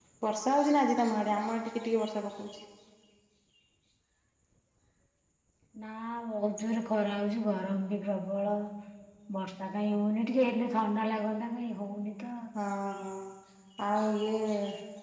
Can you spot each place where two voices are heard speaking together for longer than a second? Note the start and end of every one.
none

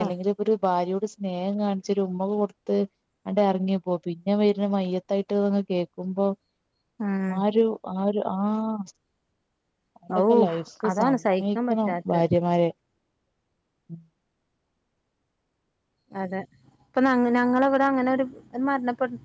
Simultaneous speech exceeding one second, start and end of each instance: 10.9-12.2

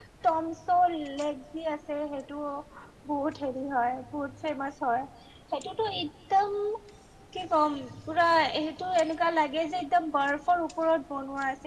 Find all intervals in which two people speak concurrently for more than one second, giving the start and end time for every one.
none

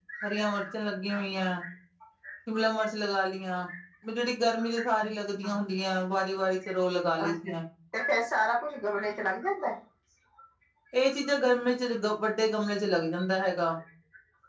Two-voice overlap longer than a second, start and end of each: none

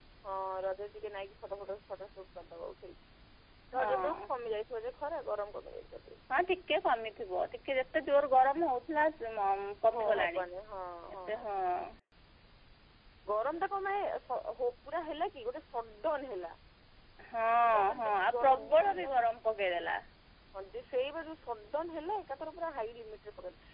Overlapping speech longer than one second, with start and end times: 17.6-19.3

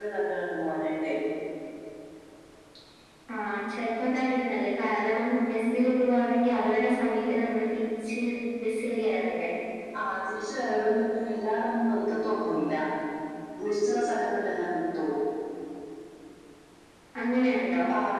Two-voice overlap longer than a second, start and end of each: none

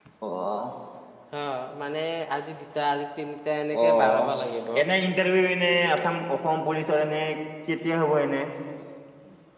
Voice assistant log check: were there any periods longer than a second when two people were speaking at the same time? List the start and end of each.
none

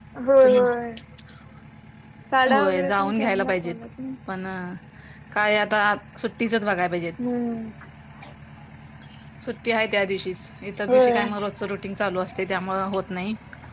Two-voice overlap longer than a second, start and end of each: 2.5-3.8

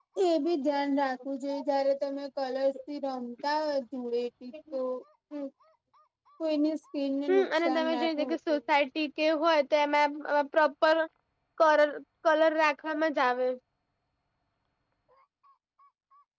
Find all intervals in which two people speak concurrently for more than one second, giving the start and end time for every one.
7.3-8.6

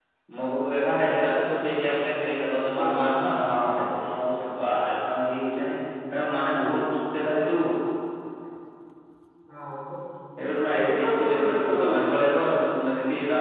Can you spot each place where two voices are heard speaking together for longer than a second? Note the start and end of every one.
10.7-12.2

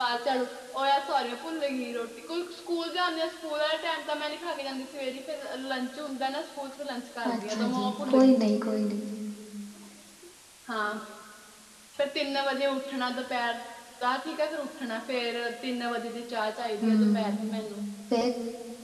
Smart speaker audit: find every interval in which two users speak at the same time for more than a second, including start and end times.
7.3-8.5

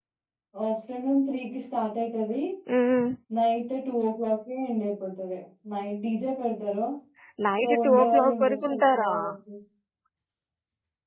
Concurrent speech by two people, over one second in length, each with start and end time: 7.6-9.1

